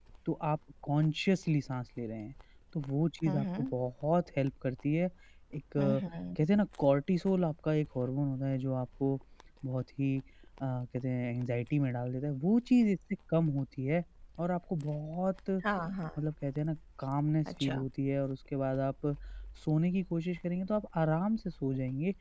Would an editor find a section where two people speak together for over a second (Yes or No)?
No